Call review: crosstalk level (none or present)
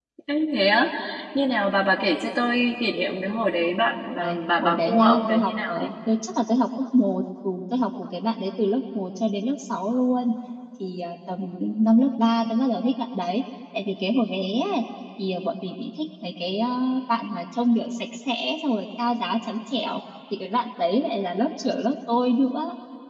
present